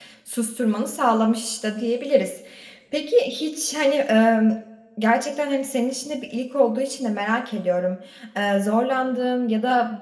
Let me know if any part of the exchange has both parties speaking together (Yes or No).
No